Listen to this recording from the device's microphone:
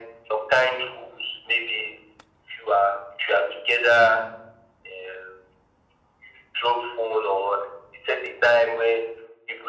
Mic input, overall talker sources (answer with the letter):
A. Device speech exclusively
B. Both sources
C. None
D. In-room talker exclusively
A